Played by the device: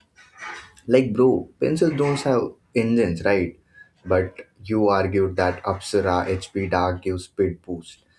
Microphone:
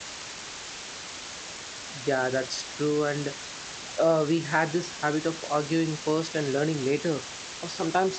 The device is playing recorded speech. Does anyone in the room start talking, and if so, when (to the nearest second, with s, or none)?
2 s